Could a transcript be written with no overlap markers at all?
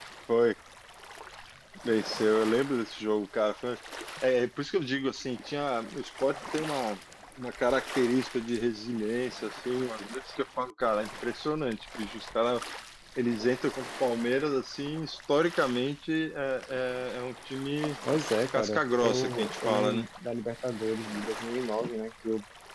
No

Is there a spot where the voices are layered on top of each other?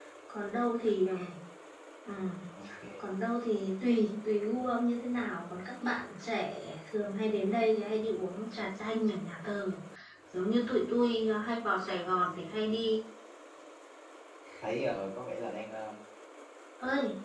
No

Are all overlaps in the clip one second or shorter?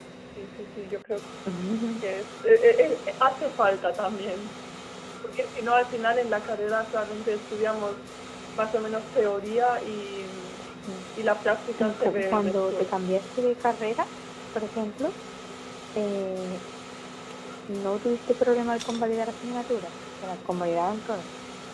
No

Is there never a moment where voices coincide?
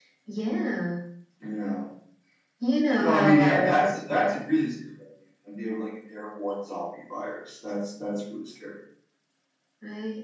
No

